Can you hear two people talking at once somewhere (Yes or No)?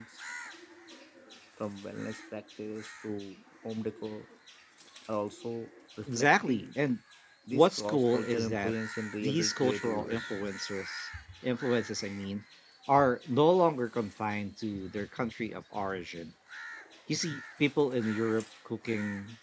Yes